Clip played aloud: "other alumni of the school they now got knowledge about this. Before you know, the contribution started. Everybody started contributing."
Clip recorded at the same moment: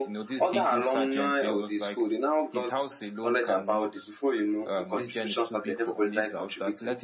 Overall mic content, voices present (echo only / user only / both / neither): both